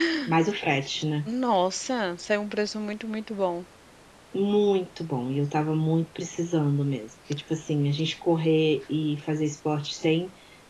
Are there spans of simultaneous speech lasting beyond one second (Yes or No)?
No